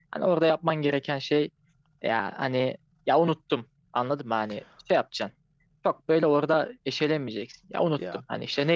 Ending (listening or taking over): listening